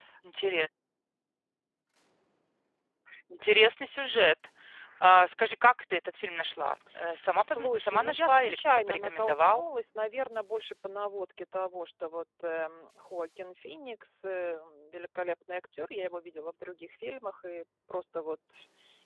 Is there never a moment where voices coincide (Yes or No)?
No